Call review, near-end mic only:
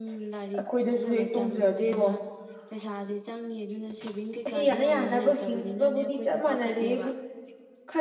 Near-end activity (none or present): present